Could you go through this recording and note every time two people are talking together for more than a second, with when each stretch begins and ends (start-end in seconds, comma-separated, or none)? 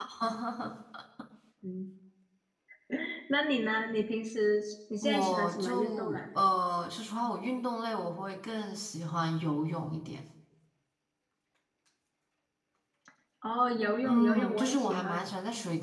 5.0-6.2, 14.0-15.3